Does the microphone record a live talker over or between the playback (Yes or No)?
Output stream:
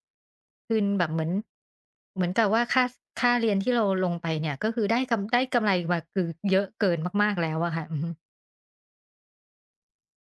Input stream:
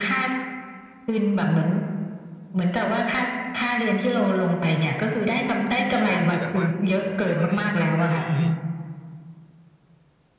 Yes